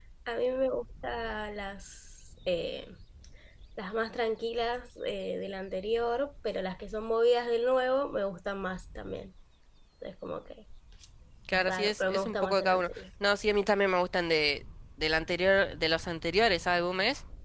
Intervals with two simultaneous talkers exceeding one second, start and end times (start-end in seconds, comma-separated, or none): 11.5-12.9